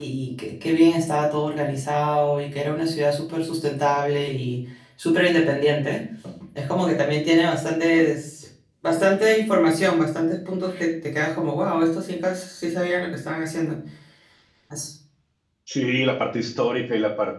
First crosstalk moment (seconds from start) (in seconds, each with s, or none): none